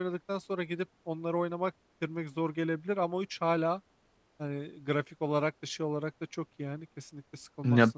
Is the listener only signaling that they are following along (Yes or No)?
No